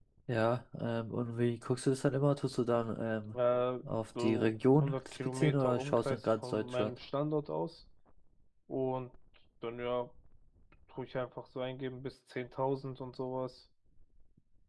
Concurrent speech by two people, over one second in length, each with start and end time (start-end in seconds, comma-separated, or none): 4.2-6.9